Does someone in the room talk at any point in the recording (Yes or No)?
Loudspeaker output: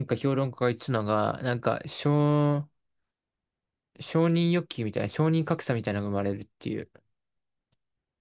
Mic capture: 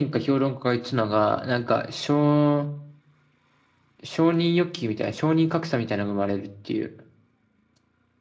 No